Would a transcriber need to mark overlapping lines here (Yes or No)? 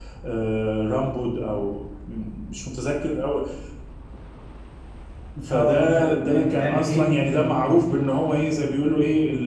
Yes